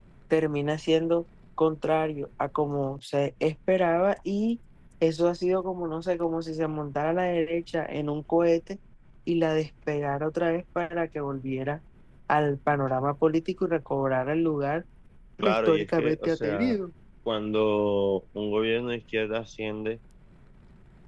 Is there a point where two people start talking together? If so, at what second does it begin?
15.4 s

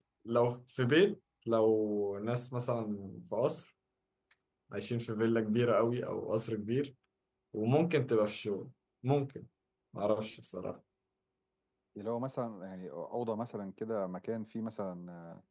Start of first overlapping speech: none

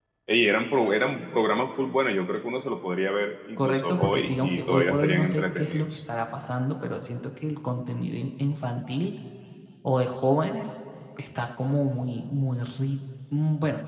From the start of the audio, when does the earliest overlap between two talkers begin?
3.6 s

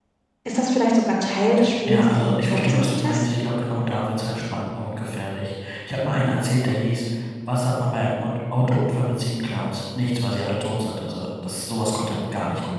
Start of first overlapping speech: 1.9 s

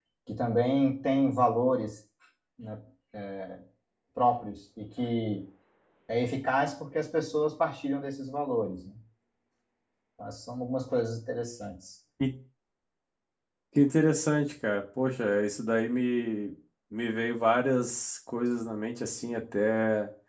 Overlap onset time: none

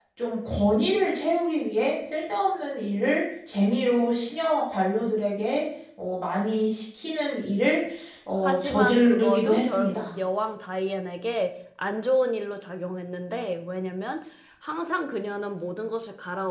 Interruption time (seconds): 8.4 s

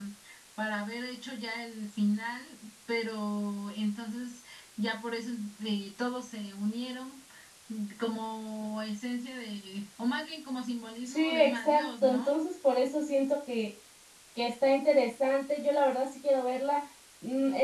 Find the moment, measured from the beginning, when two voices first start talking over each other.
11.0 s

